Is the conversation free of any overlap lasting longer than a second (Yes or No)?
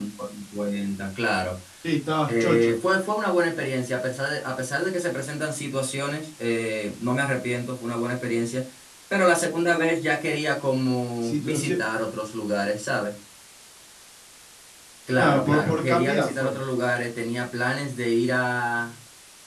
No